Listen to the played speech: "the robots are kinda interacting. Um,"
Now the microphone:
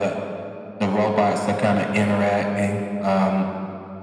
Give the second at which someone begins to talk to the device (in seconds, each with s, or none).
none